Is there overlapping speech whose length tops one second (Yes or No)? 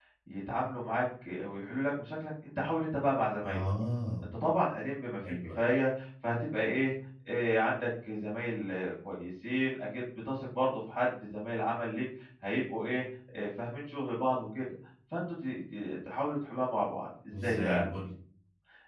No